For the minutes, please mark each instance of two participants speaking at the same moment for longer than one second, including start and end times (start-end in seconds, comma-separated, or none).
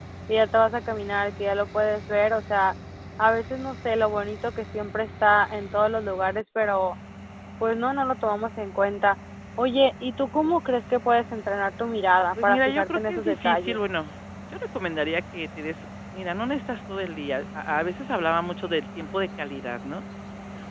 12.4-13.8